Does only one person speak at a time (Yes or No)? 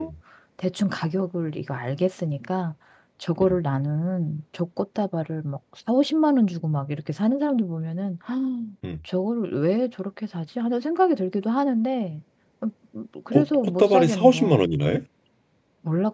No